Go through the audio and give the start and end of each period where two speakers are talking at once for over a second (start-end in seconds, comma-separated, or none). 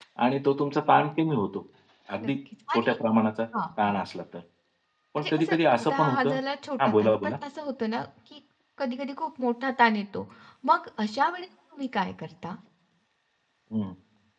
5.2-6.4